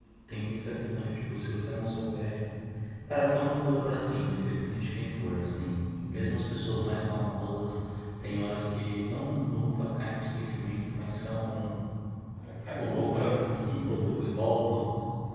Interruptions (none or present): present